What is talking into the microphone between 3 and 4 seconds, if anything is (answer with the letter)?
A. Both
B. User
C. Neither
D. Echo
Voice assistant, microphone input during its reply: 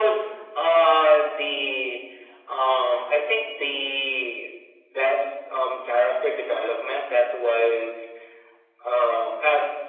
D